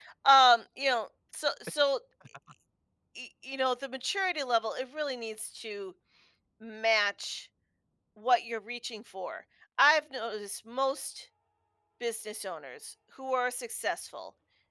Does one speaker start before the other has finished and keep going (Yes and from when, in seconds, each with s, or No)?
No